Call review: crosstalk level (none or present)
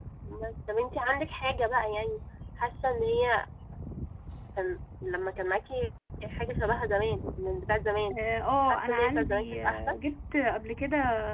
present